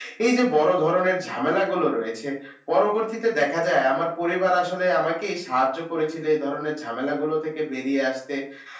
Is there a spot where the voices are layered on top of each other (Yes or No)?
No